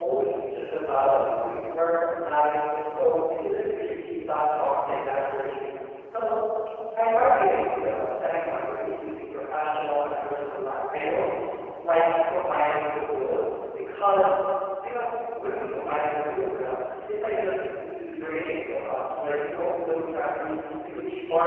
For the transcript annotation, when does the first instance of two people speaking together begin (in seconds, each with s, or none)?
none